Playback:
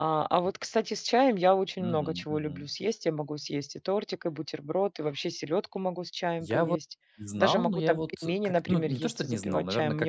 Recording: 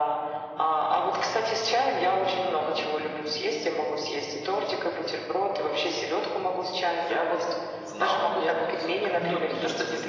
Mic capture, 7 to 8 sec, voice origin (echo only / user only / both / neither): echo only